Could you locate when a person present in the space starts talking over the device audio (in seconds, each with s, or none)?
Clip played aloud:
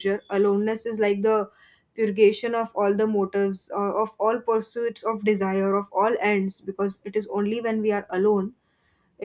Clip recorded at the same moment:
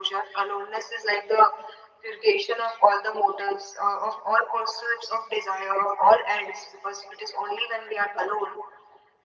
none